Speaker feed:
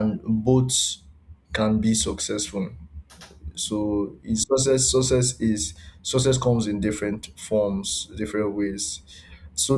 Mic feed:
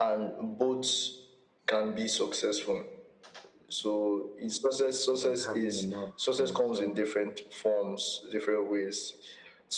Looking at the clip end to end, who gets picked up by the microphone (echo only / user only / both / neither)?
both